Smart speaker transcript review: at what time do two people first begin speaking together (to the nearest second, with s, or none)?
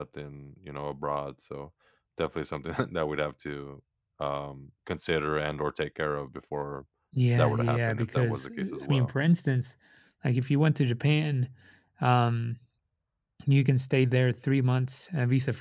7 s